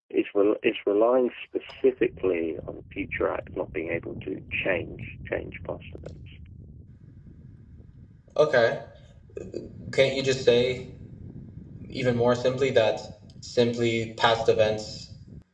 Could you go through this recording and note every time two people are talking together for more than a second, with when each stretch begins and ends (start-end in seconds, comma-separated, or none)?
none